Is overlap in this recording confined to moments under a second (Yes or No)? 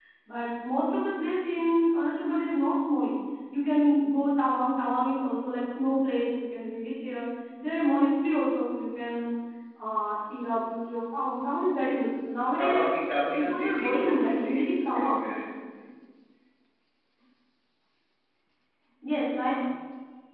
No